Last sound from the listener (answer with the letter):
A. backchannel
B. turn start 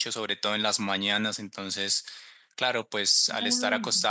A